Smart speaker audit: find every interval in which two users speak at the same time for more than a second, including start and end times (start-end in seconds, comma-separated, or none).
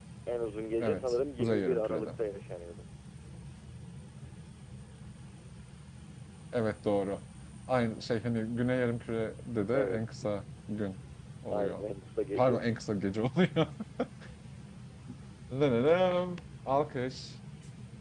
0.8-2.1